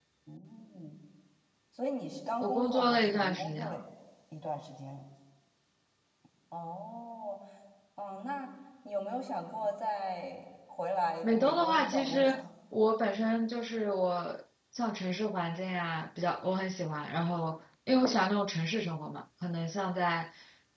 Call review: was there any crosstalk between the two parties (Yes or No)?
Yes